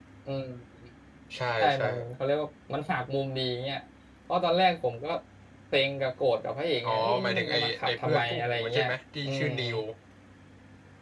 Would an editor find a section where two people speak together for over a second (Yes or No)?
Yes